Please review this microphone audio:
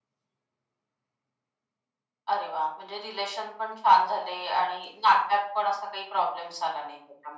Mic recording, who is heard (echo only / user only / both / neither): echo only